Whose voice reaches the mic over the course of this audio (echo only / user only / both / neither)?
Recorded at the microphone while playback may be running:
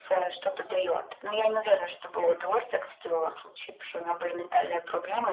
echo only